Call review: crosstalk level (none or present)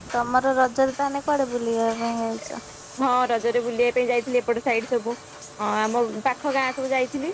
none